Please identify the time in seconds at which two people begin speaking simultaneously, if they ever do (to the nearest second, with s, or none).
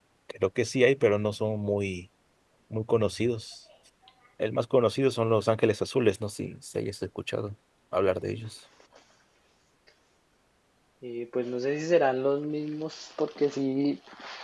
none